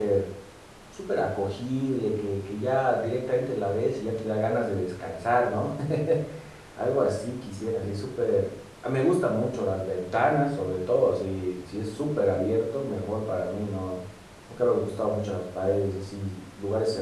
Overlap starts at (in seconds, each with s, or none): none